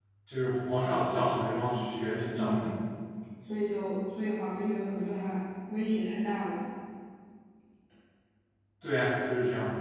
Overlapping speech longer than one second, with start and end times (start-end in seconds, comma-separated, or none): none